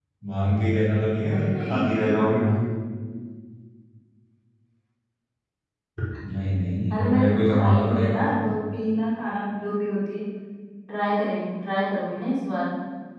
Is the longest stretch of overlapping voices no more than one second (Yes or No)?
No